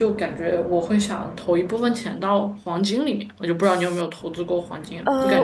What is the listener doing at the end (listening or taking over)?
taking over